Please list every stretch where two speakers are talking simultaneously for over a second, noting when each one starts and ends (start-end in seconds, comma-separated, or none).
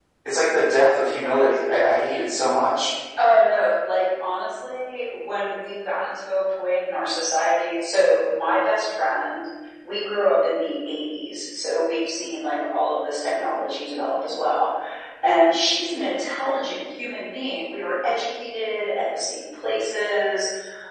none